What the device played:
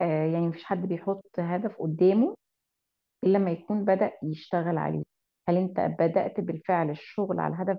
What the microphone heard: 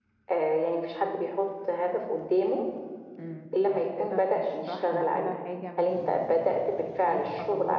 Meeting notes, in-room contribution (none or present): present